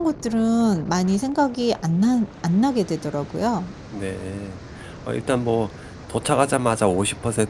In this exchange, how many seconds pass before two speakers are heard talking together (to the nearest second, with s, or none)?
none